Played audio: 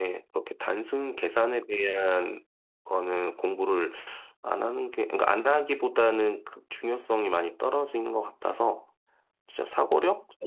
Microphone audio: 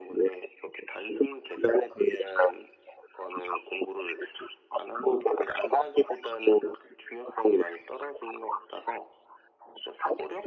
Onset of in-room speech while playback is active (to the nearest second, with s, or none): none